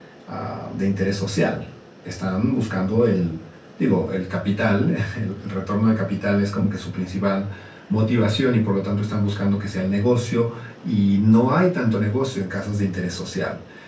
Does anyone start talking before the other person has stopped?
No

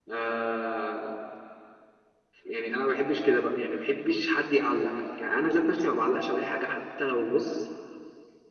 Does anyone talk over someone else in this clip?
No

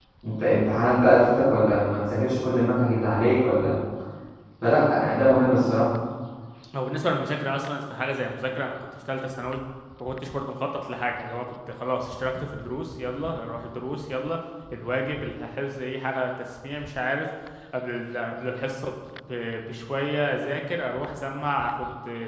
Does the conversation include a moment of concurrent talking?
No

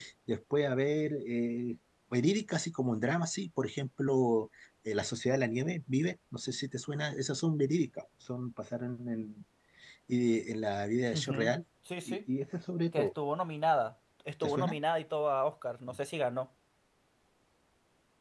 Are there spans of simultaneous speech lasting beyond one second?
No

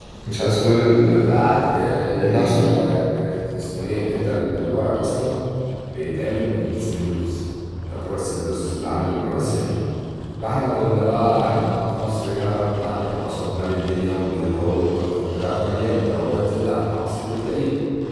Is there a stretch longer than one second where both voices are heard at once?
No

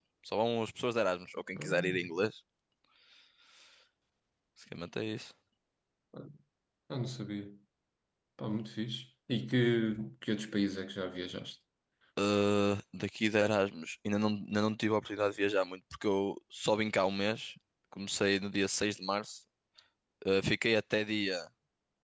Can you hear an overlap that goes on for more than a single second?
No

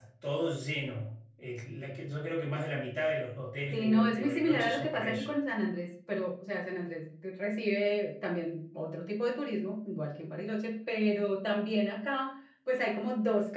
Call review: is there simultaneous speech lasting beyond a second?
Yes, from 3.7 s

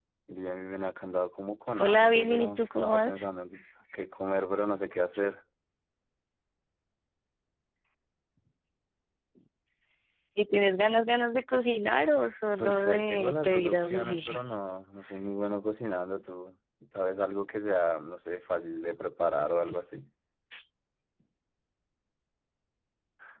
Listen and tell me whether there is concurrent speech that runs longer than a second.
Yes, from 1.8 s

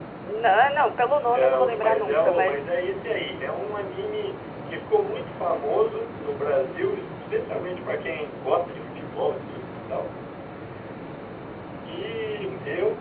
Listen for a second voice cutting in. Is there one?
Yes, from 1.3 s

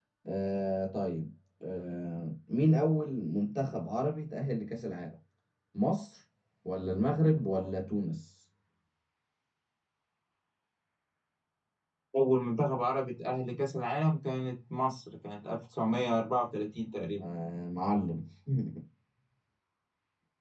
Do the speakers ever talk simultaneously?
No

